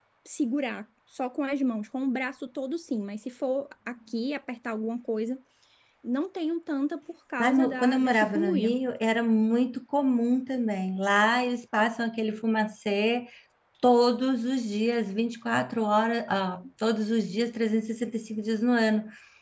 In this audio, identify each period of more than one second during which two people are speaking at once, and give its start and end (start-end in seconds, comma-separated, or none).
7.4-8.7